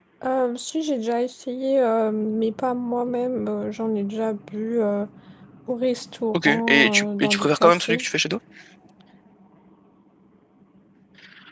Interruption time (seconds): 6 s

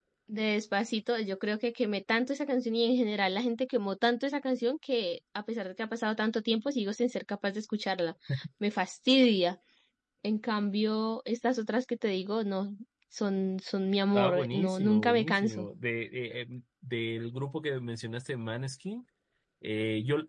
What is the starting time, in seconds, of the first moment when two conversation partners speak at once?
14 s

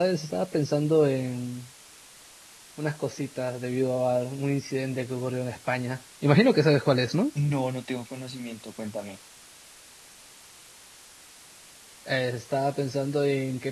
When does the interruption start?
none

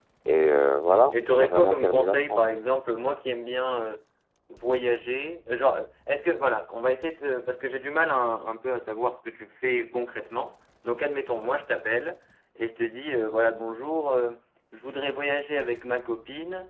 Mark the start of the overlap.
1 s

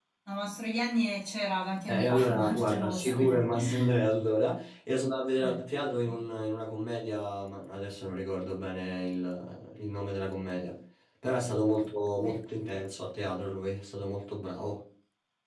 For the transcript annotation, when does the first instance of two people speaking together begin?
2 s

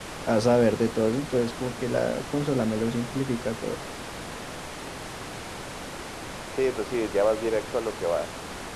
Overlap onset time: none

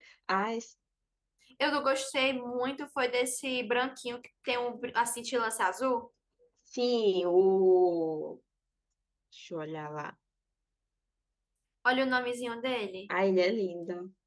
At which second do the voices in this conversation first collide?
none

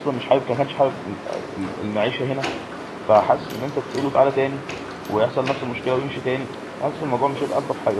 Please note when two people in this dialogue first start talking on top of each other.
none

